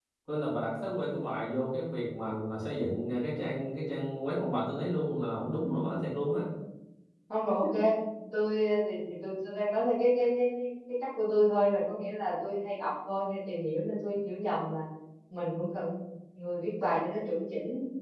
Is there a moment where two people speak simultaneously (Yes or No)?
No